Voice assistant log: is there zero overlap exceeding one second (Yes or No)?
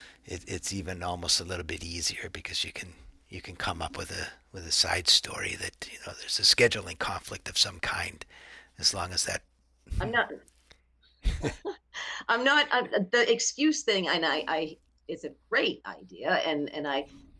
Yes